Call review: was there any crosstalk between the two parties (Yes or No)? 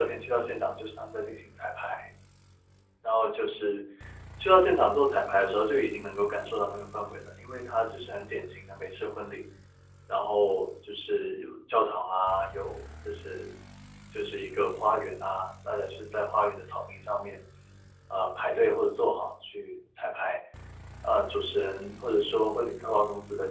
No